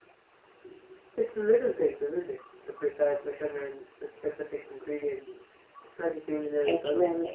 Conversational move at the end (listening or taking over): taking over